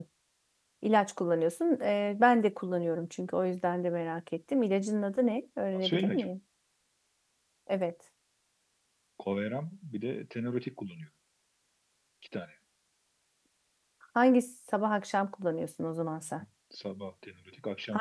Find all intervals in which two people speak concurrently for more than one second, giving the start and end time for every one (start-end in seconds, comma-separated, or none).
none